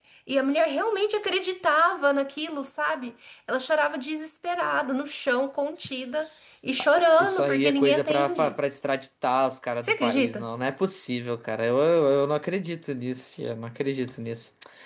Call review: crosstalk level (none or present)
present